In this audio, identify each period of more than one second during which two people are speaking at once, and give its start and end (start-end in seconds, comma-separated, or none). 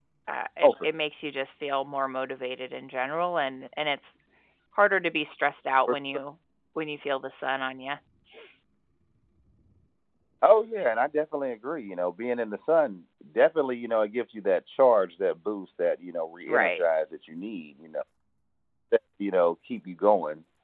none